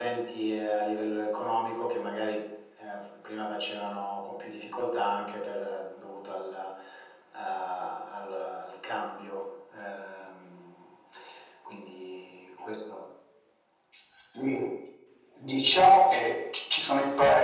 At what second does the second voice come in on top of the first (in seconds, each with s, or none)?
none